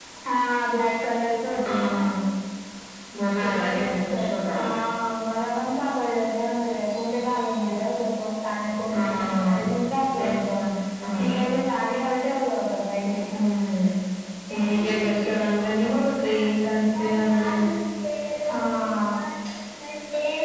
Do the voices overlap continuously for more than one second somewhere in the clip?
Yes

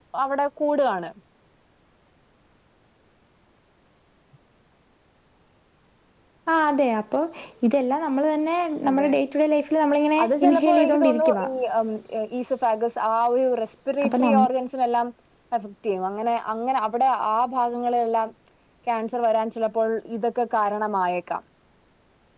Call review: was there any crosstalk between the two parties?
Yes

